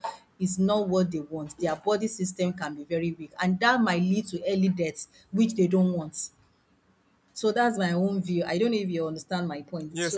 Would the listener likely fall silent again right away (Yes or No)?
No